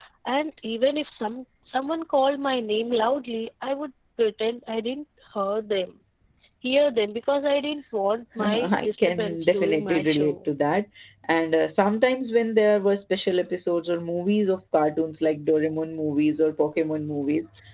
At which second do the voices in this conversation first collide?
8 s

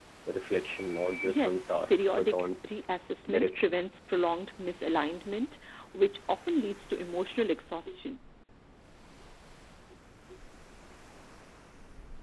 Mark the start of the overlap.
1 s

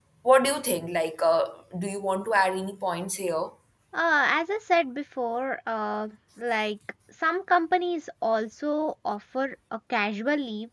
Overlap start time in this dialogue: none

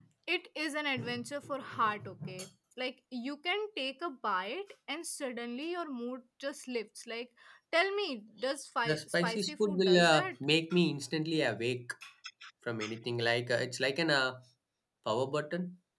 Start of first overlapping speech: 9 s

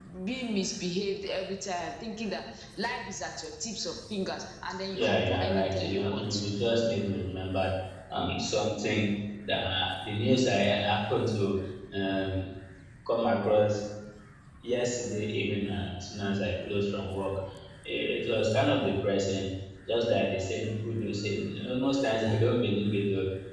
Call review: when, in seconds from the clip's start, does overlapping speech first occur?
5 s

